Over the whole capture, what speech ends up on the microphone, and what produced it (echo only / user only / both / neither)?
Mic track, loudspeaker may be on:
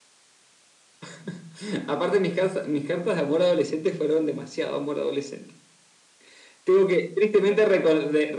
echo only